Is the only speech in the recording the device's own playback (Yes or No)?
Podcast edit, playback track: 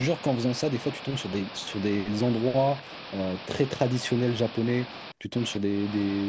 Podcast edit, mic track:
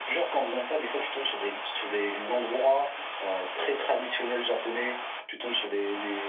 Yes